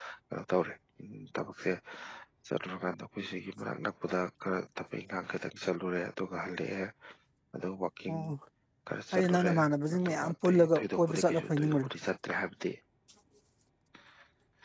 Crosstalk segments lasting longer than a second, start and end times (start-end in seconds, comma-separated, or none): 10.1-11.9